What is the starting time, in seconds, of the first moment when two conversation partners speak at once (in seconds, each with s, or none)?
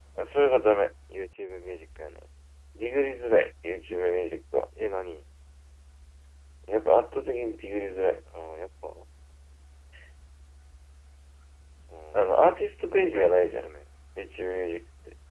12.1 s